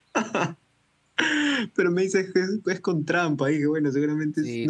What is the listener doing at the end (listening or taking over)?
taking over